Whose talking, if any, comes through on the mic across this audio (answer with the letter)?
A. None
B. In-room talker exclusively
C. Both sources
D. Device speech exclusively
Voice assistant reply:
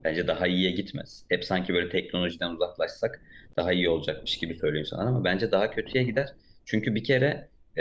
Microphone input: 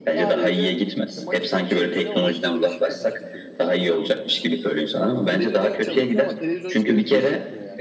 C